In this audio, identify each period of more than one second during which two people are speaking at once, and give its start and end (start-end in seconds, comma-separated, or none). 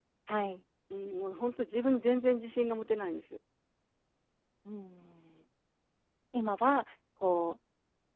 none